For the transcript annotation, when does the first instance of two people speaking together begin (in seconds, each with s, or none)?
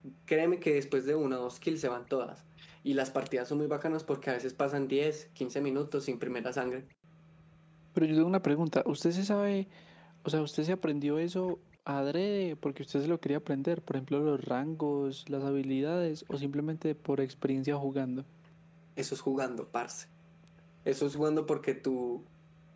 none